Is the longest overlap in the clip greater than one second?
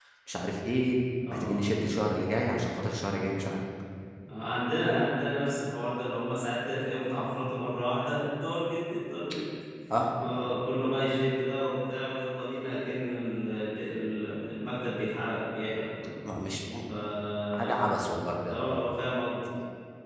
No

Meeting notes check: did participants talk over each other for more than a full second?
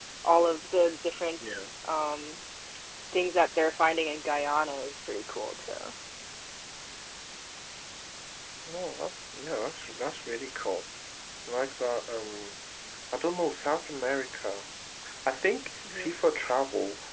No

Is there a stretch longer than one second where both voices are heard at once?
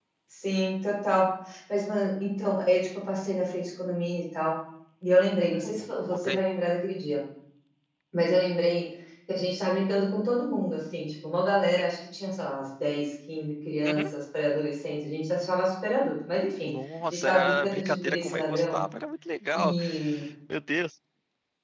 Yes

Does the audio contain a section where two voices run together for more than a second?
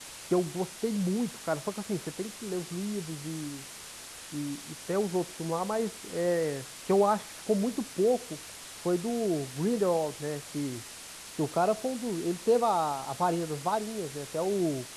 No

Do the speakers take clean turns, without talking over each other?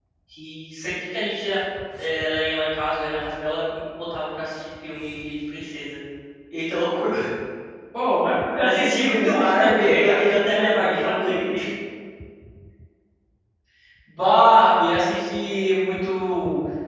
No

